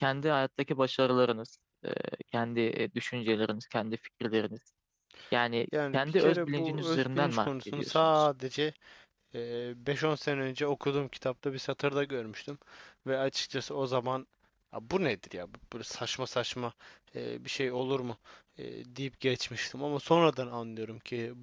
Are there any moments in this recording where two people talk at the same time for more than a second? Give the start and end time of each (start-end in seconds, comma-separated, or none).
5.9-8.3